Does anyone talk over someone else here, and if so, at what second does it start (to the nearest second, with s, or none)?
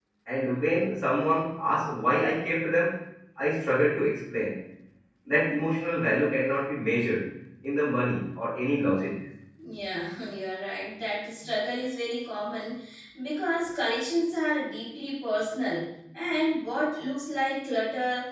none